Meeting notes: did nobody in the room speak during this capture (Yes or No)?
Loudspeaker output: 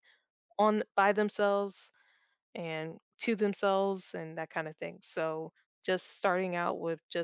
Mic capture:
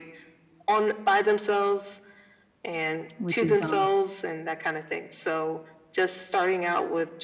No